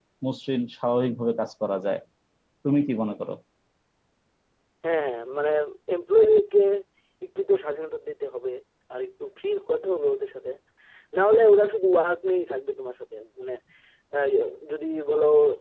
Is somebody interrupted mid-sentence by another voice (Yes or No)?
No